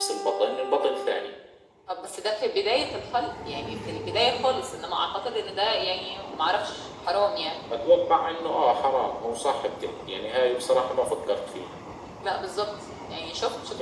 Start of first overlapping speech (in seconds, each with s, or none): none